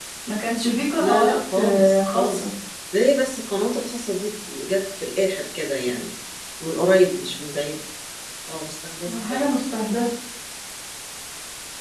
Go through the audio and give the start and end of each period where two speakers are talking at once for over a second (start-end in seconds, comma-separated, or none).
1.0-2.5